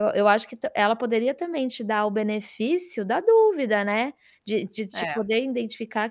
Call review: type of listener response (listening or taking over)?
listening